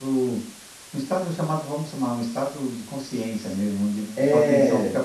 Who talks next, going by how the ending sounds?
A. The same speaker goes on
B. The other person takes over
A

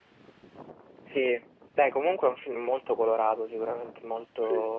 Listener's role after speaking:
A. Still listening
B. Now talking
A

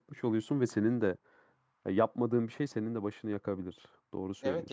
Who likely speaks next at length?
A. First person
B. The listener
B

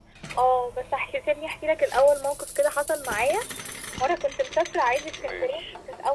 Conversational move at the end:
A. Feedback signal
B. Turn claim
A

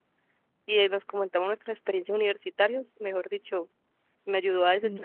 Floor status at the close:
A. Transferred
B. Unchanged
A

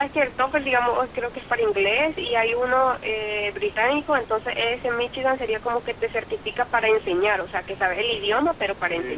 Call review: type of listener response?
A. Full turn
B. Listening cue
A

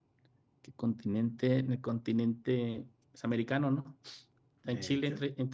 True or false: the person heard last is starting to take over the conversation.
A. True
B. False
B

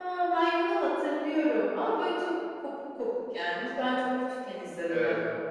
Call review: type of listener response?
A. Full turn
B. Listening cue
A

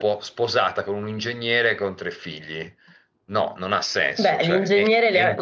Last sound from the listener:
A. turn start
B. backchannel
A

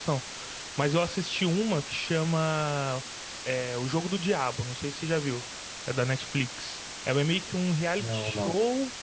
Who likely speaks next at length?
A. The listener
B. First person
B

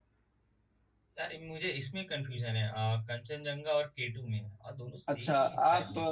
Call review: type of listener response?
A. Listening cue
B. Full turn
B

